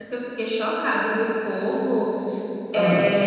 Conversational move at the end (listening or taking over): listening